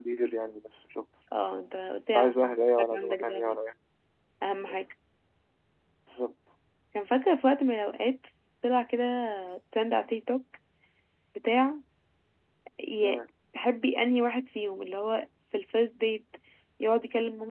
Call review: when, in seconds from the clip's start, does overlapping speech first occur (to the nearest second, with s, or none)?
2 s